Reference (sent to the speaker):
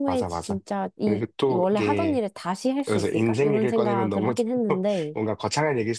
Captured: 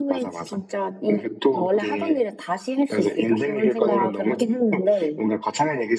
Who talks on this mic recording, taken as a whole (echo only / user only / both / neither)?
echo only